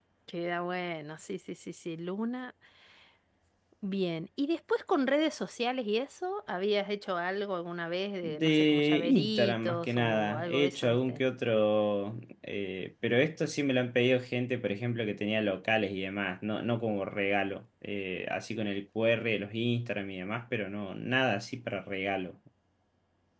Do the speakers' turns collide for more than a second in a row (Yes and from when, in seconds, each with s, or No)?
Yes, from 8.2 s